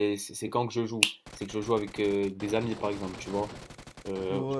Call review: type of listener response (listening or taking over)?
listening